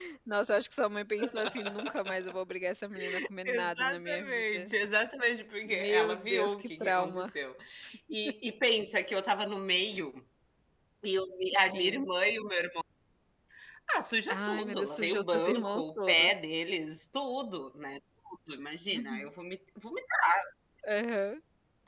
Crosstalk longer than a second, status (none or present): present